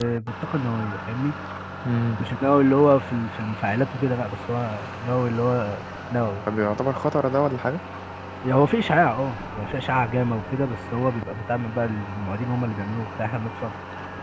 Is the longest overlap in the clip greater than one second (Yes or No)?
No